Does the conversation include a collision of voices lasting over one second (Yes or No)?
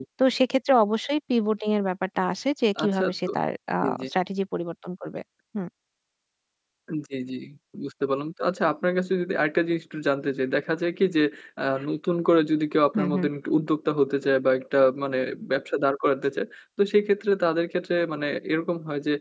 No